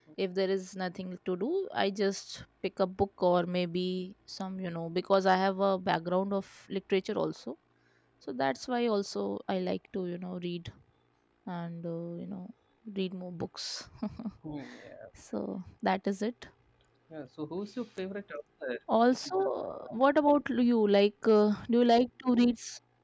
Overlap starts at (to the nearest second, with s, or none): none